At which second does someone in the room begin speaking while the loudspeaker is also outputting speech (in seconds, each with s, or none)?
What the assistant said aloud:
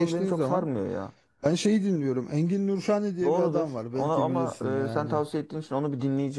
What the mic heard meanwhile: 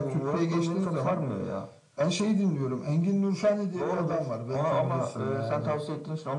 none